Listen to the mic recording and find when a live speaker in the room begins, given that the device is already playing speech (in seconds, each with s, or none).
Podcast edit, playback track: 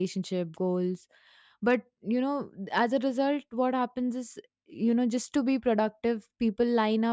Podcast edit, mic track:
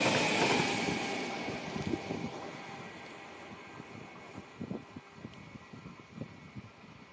none